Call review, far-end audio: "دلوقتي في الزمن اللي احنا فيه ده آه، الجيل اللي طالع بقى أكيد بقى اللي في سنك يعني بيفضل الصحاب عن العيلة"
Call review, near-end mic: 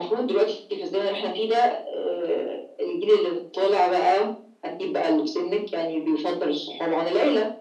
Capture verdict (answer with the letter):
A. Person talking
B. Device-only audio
B